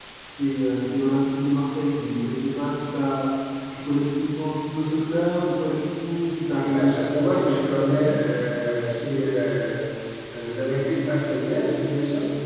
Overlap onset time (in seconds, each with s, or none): 6.5 s